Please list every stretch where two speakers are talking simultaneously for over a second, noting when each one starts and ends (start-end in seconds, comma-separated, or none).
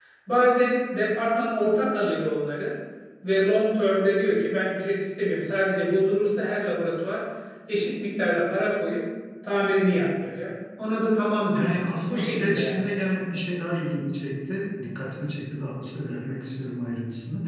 11.5-12.9